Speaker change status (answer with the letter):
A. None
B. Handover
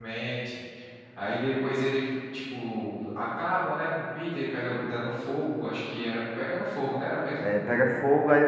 B